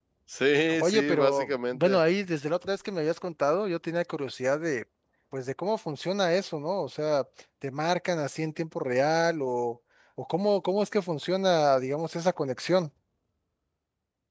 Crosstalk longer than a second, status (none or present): present